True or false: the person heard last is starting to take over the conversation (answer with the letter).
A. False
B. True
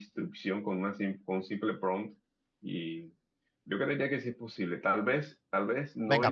B